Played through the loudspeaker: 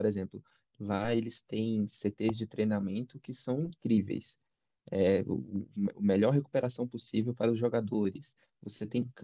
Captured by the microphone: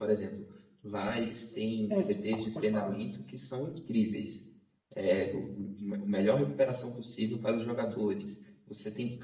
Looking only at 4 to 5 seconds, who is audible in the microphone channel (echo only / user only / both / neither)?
echo only